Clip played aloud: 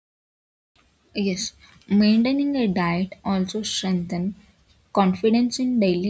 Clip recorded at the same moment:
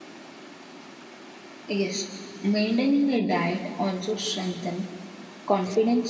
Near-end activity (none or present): none